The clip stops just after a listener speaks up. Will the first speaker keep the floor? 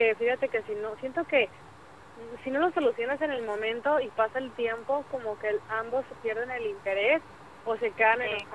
Yes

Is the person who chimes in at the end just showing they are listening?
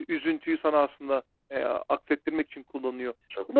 Yes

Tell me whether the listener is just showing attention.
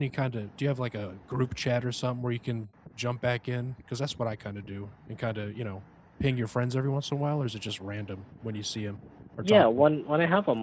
No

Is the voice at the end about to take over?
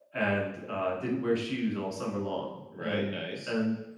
No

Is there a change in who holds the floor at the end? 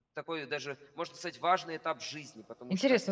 Yes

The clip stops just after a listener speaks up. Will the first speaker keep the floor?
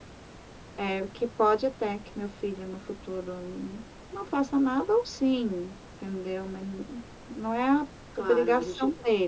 No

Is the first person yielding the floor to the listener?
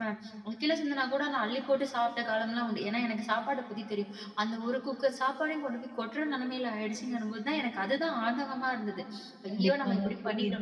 Yes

